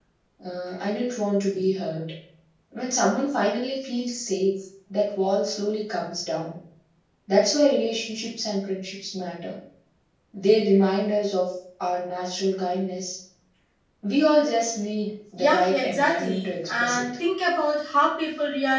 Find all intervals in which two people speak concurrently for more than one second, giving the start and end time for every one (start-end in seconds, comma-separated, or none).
15.4-17.0